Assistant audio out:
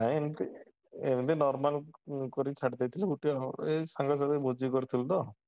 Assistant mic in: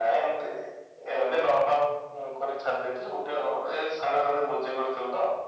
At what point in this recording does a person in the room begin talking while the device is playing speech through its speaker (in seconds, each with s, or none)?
none